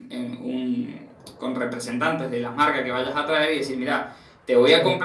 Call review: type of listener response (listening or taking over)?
listening